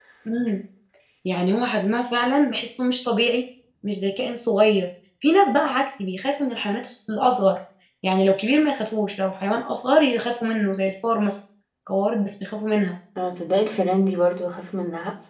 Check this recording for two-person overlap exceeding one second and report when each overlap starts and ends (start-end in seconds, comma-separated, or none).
none